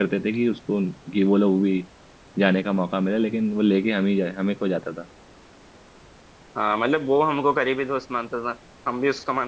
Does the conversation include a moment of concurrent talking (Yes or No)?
No